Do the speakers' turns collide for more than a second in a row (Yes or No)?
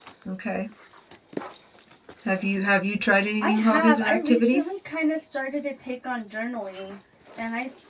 Yes